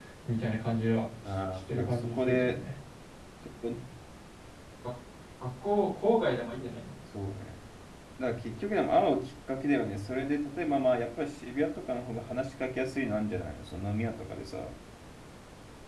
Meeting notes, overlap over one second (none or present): present